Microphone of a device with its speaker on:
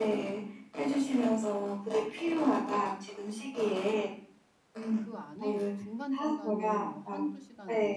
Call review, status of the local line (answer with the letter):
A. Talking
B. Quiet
A